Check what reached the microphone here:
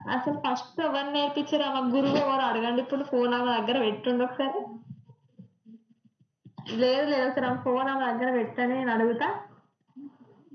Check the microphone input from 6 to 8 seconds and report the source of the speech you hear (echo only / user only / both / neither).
echo only